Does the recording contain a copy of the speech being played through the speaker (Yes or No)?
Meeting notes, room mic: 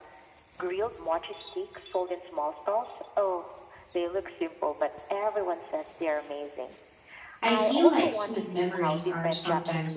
Yes